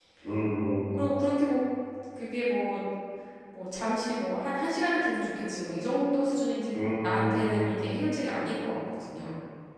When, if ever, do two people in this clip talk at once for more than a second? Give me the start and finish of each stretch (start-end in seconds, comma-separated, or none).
6.8-8.1